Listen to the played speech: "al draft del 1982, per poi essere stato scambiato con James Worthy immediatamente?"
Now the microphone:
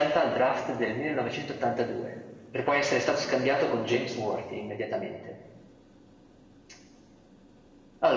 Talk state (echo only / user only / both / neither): echo only